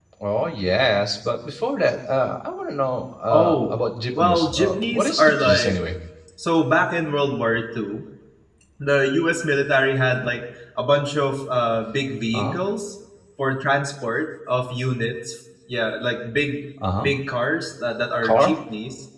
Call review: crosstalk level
present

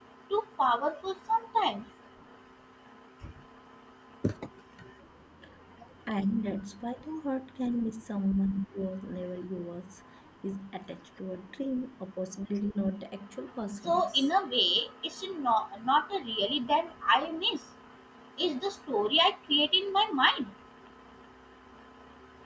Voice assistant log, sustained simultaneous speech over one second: none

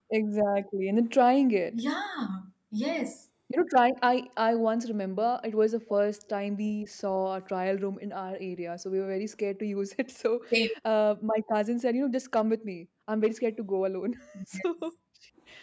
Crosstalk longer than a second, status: none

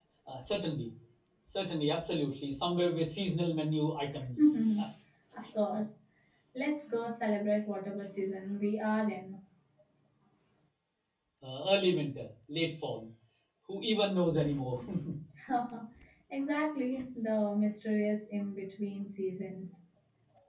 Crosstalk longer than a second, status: none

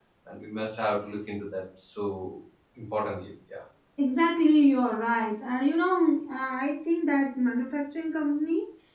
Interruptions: none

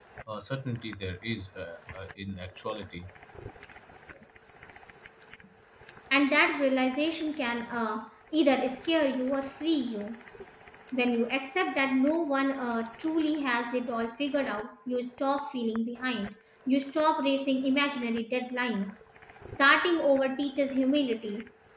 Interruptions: none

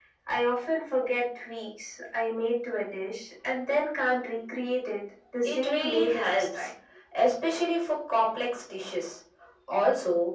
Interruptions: present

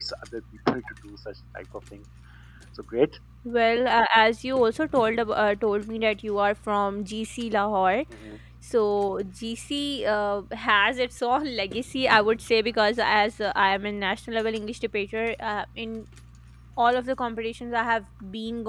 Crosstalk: none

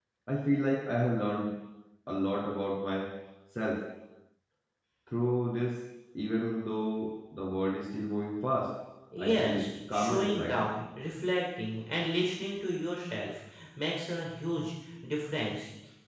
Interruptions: present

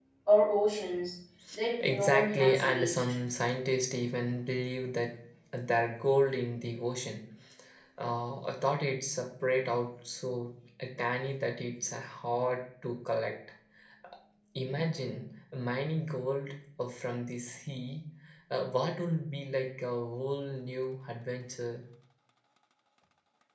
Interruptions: present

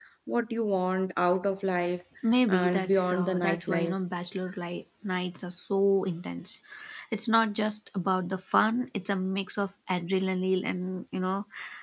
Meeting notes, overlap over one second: present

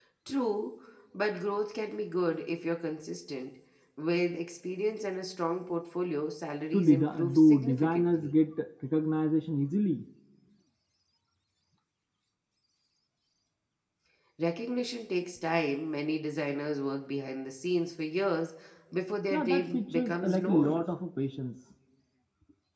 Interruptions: present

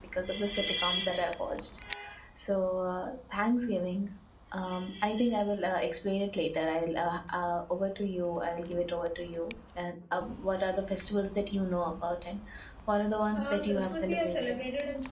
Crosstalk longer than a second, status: present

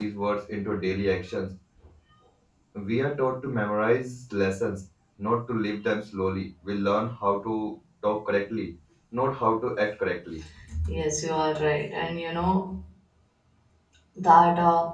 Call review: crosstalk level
none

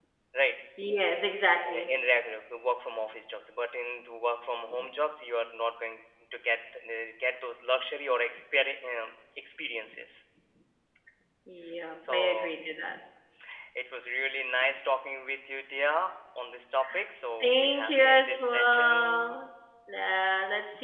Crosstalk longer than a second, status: present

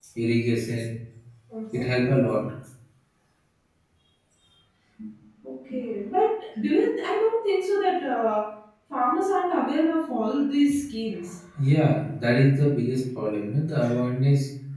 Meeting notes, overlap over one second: none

